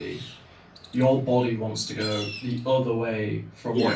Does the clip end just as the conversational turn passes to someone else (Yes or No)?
No